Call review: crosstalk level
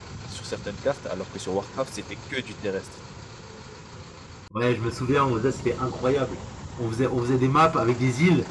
none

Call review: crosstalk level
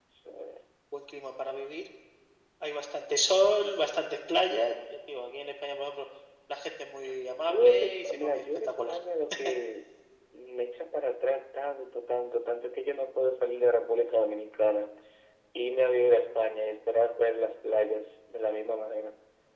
present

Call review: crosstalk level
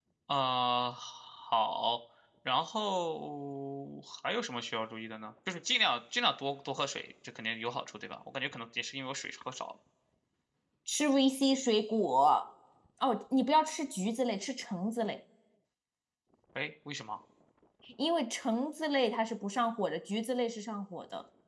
none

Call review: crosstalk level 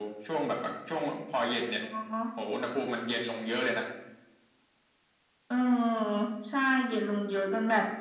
none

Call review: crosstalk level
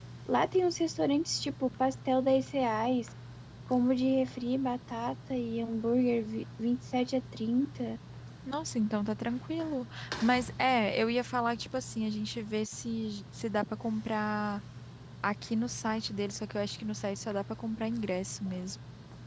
none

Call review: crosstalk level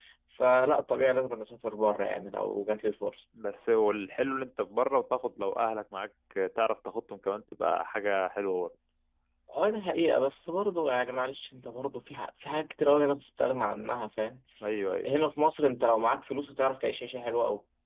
none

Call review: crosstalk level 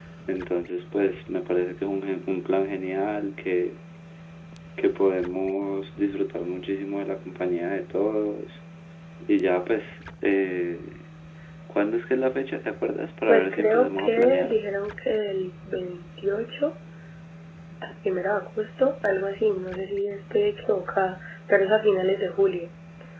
present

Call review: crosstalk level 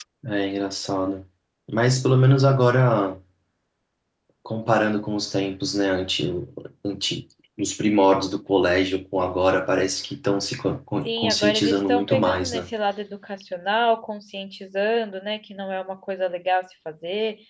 present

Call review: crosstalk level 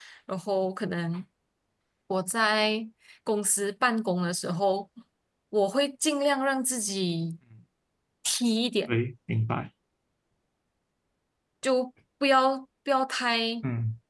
none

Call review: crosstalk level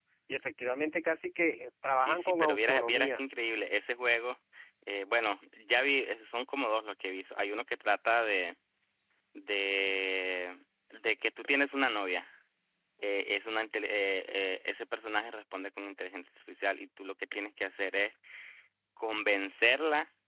present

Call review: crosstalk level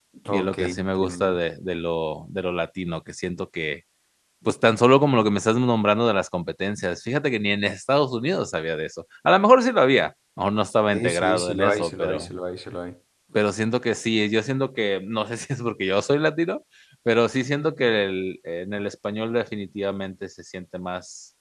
present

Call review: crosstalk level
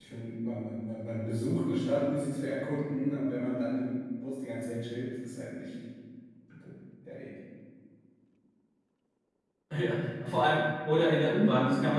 none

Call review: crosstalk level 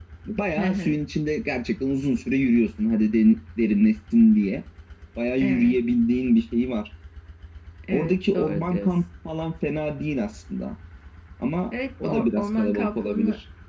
present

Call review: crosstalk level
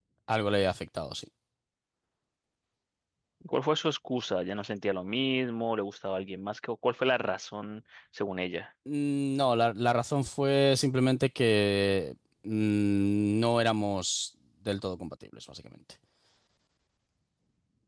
none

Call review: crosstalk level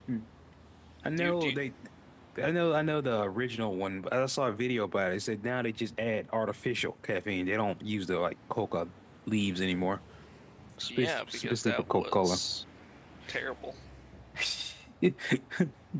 present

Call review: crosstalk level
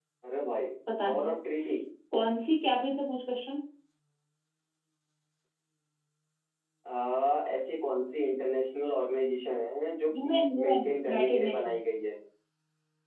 present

